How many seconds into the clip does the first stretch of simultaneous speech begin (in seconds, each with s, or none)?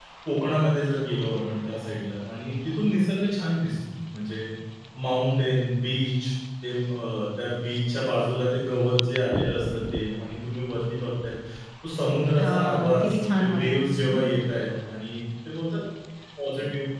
12.4 s